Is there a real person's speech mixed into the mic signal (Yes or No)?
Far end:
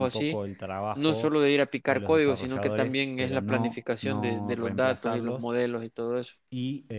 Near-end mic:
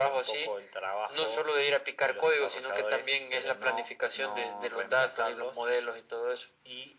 No